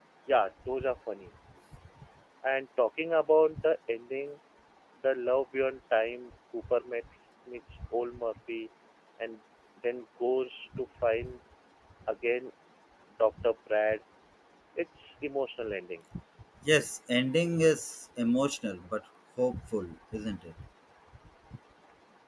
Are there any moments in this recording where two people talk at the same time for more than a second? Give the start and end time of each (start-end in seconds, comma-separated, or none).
none